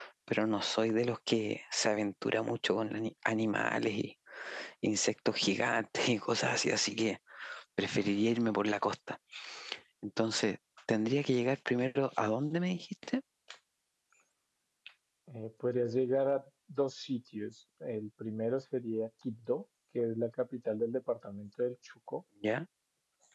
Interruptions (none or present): none